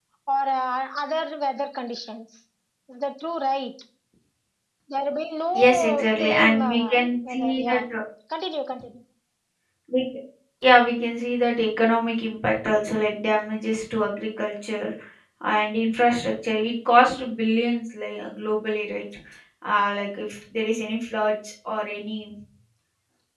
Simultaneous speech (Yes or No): Yes